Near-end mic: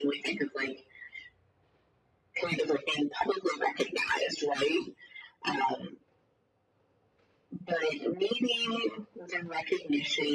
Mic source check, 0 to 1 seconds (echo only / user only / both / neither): echo only